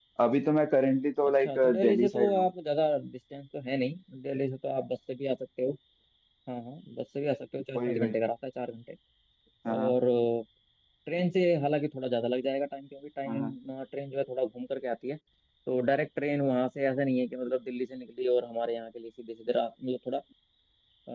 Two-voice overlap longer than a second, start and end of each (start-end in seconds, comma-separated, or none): 1.3-2.5